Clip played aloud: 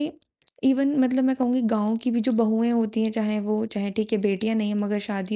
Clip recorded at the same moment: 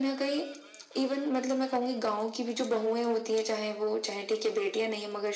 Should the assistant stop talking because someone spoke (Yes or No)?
No